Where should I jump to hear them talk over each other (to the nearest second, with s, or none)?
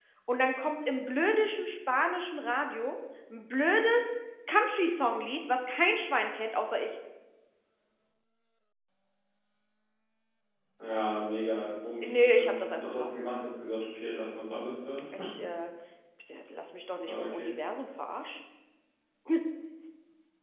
12 s